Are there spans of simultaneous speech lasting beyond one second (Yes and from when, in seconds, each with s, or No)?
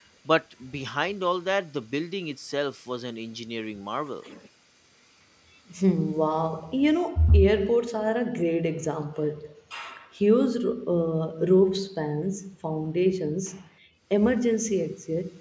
No